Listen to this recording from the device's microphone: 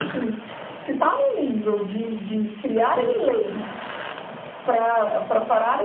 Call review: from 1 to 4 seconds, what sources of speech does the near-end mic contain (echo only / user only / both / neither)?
echo only